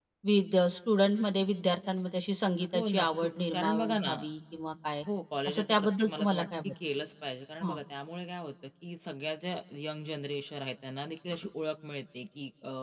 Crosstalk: present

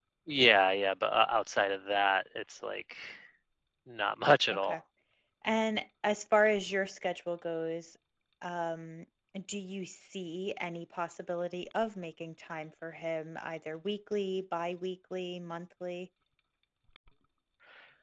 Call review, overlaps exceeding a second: none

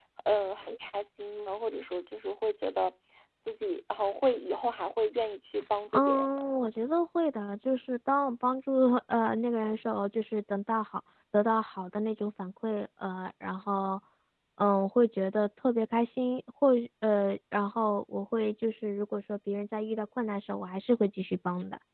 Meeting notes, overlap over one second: none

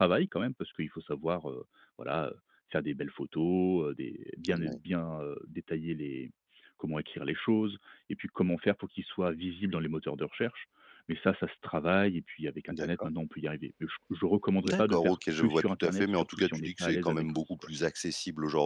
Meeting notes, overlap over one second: present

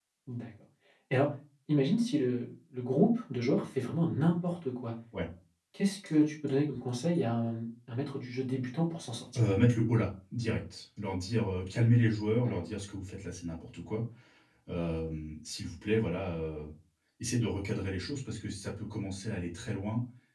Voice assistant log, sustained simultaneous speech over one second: none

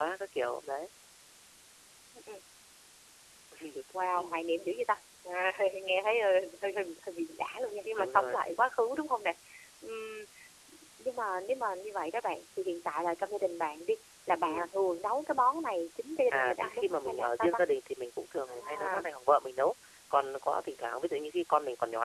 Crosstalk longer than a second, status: present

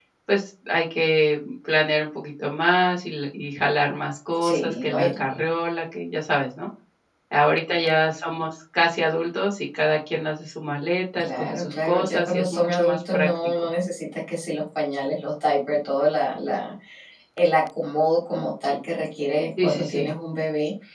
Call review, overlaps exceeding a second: present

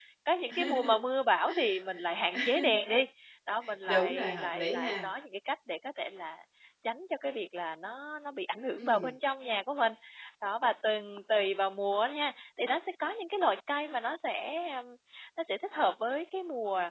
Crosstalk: present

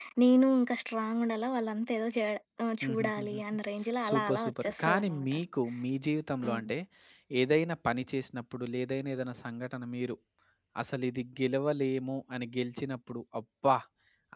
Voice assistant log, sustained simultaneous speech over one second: present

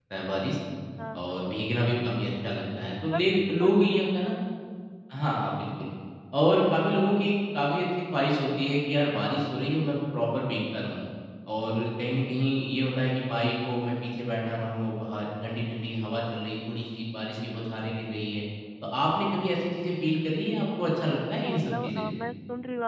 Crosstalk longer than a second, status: present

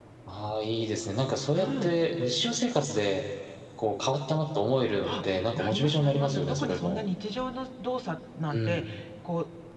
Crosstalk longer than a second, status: present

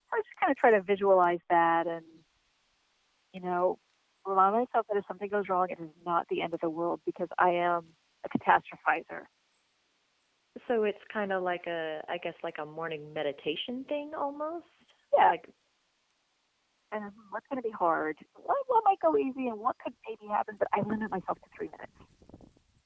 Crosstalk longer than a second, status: none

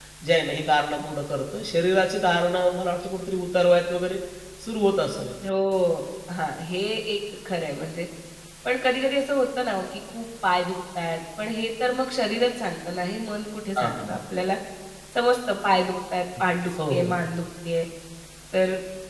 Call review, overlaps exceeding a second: none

